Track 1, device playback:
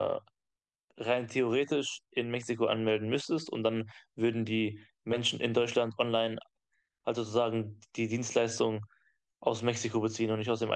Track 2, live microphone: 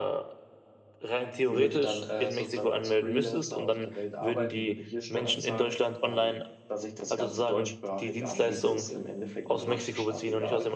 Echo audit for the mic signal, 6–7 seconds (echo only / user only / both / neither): both